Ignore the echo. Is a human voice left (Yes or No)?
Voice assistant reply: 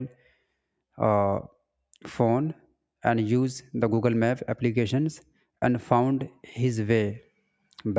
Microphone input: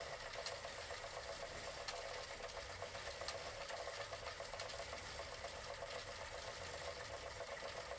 No